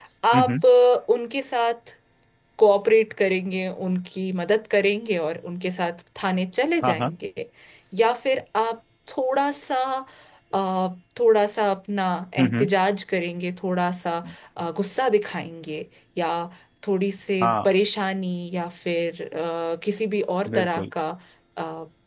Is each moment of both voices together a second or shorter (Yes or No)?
Yes